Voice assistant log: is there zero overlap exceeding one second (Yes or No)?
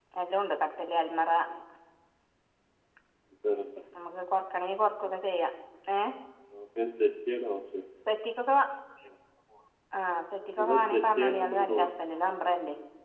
No